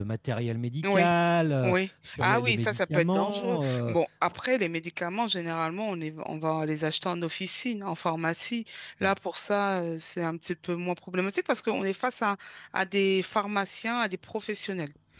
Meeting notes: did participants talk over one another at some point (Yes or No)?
Yes